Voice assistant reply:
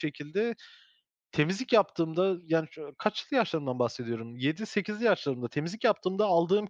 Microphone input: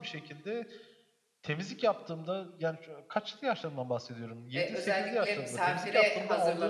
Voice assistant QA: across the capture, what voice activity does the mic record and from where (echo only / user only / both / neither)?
both